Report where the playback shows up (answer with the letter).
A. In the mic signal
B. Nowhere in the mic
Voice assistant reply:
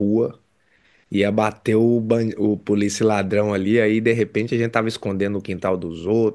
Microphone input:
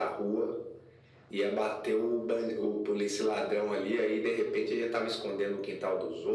A